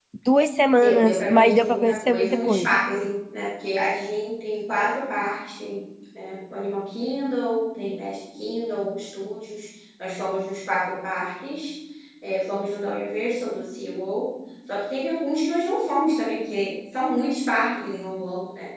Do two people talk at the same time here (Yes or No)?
Yes